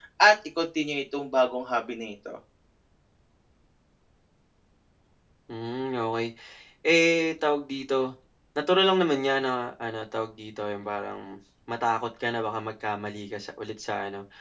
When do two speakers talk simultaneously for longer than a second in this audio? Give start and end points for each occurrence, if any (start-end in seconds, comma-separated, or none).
none